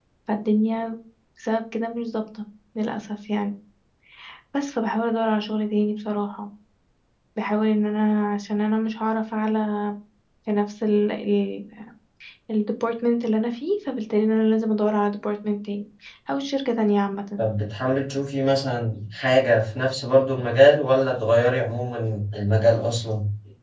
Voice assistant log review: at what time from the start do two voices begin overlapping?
none

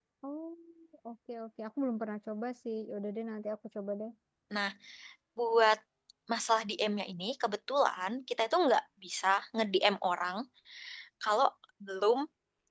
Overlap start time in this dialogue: none

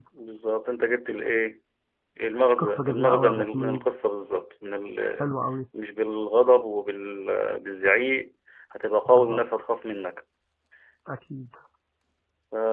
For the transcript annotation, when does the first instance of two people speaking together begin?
2.6 s

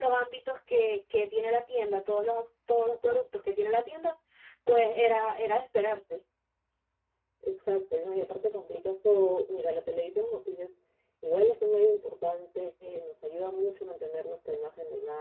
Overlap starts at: none

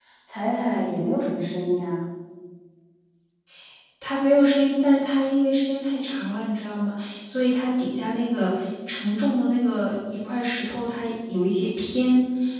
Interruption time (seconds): none

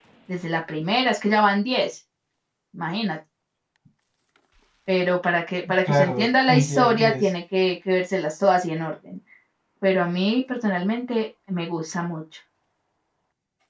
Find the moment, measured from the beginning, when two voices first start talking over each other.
5.8 s

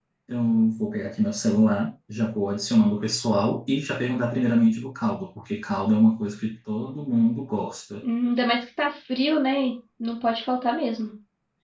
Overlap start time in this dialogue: none

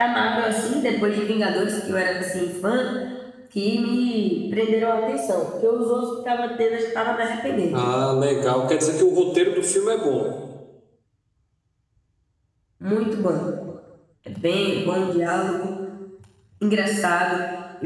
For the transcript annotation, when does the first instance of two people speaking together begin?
none

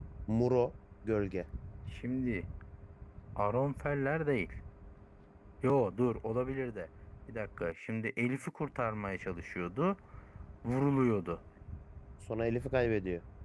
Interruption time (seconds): none

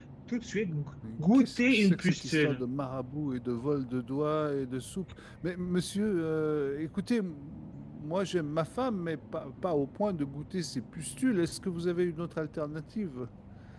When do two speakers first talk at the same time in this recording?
1.3 s

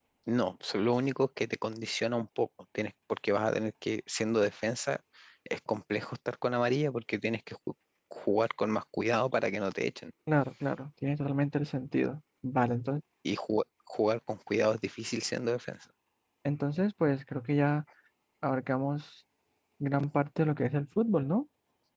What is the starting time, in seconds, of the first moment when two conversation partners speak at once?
none

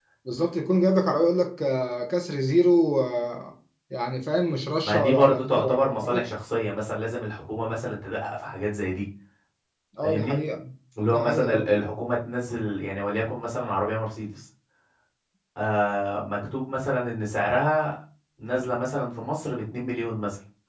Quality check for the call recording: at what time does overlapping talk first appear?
4.8 s

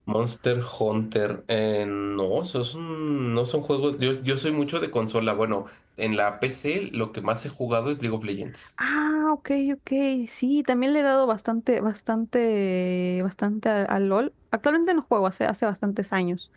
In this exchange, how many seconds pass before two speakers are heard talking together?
none

